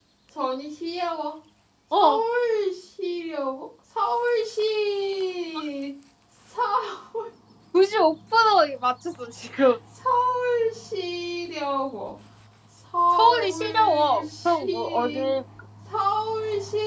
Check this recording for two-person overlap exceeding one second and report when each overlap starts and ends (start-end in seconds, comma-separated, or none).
13.2-15.2